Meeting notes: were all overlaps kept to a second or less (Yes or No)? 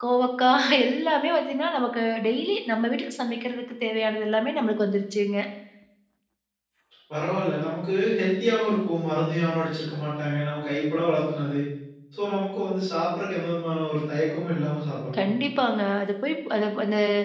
Yes